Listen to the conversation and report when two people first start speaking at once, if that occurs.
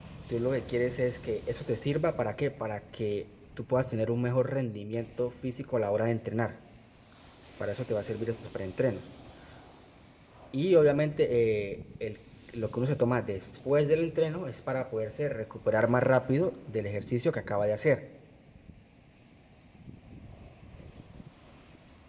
none

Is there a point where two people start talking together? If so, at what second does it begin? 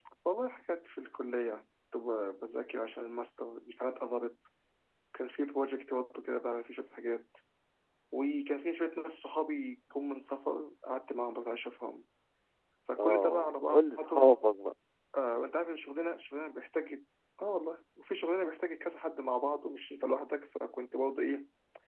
13 s

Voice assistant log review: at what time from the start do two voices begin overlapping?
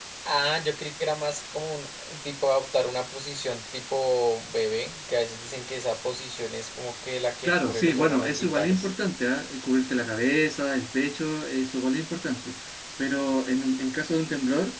7 s

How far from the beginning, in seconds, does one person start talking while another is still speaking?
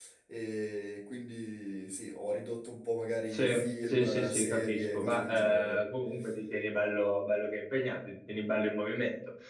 3 s

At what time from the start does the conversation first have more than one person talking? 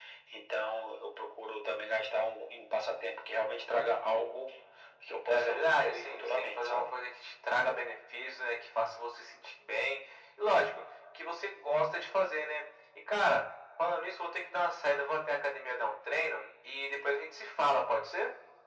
5 s

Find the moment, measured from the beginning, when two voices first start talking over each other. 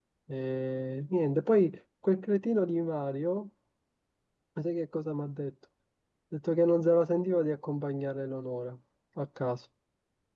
none

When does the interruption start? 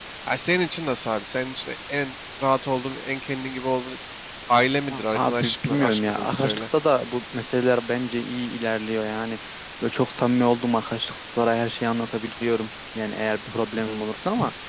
5 s

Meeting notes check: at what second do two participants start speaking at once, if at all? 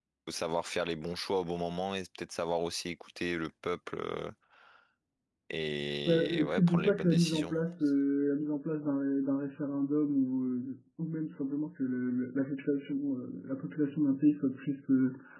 6 s

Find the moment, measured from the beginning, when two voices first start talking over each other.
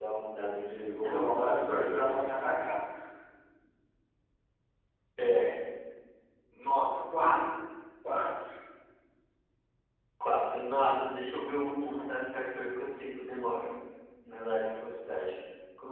1 s

